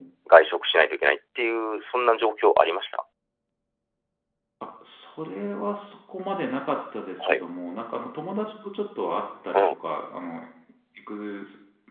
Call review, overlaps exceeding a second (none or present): none